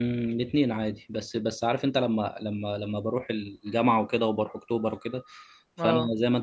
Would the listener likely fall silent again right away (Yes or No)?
Yes